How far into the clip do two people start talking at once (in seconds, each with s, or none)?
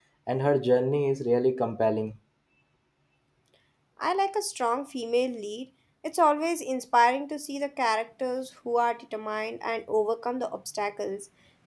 none